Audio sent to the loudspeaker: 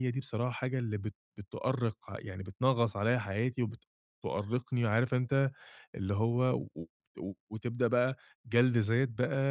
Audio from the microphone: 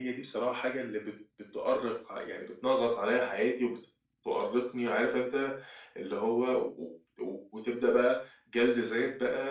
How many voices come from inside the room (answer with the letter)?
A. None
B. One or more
A